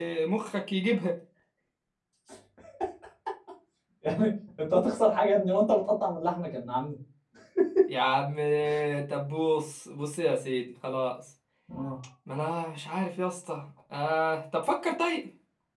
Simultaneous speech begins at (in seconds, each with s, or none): none